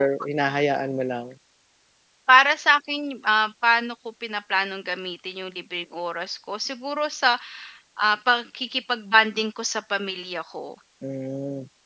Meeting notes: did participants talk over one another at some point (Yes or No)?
No